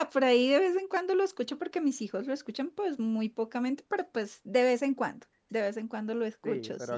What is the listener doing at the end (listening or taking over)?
taking over